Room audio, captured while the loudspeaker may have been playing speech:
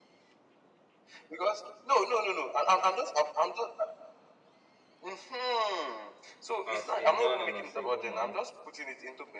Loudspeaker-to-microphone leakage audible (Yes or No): Yes